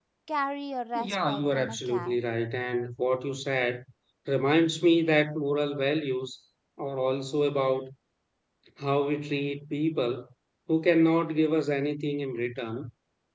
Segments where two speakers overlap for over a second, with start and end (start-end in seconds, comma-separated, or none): 0.9-2.2